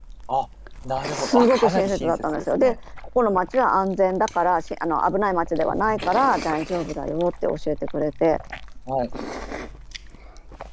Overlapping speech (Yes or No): Yes